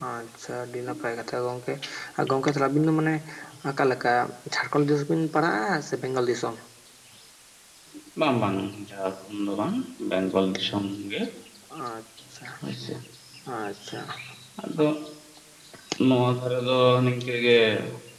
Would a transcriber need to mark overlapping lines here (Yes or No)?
No